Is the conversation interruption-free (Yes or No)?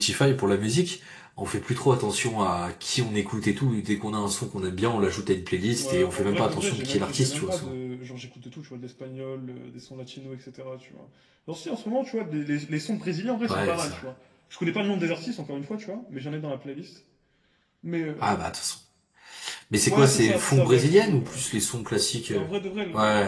No